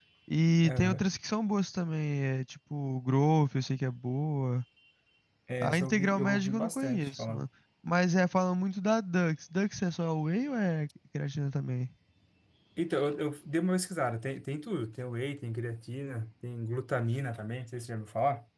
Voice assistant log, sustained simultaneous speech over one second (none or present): present